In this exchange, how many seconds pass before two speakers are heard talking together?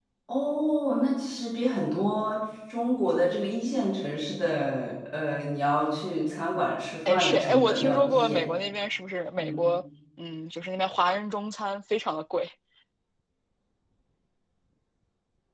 7.0 s

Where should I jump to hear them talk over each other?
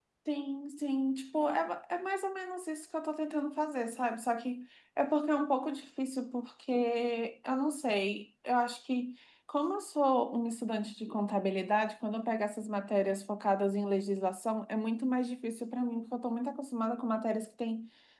none

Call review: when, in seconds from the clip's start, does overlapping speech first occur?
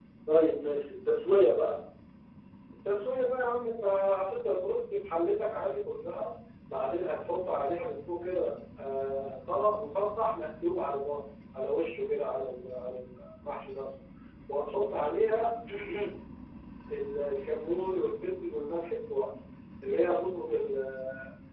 none

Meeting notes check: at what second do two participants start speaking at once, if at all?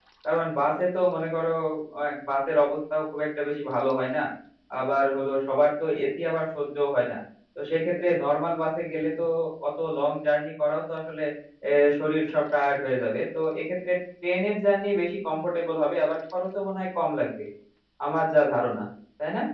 none

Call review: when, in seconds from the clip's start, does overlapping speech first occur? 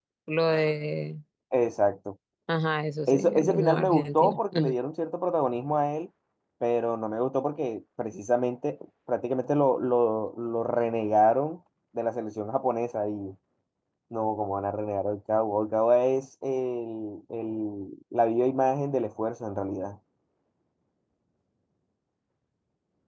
3.1 s

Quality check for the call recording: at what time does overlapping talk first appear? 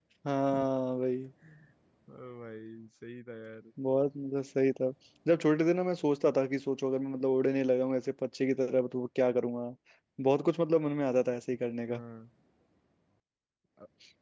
none

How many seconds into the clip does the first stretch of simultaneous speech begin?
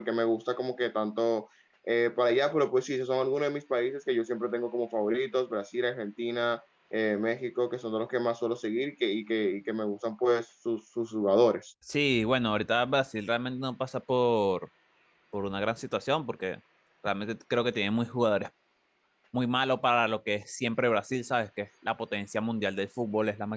none

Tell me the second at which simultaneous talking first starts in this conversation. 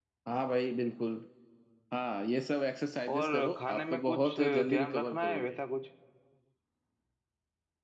3.1 s

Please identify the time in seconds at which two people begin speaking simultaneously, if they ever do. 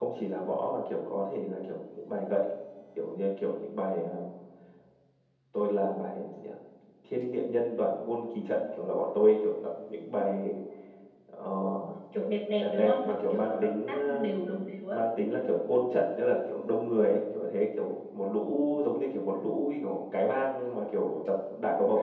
12.6 s

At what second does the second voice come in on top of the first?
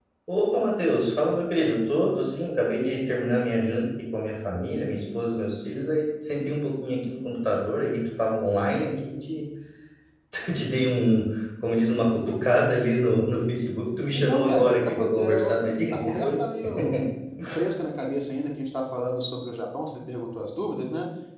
14.1 s

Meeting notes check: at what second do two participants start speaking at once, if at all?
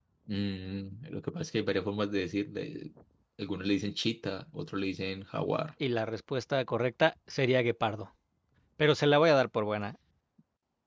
none

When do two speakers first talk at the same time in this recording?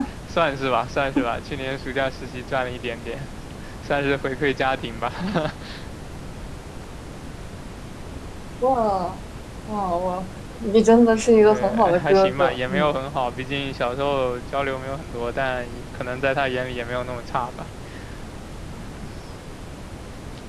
11.5 s

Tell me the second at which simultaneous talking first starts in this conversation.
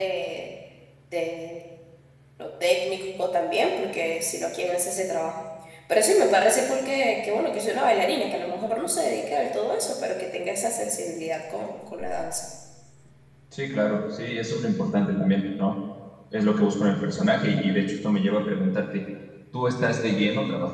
none

